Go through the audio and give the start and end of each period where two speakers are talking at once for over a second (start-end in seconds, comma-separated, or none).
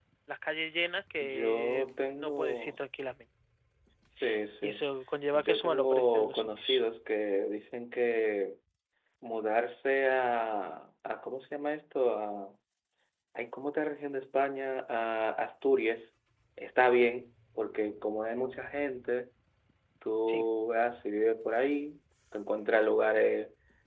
1.3-2.8, 5.3-6.8